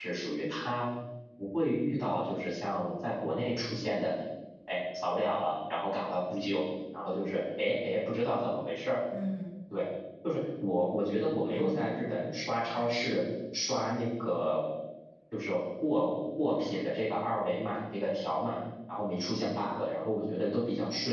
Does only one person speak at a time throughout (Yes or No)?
No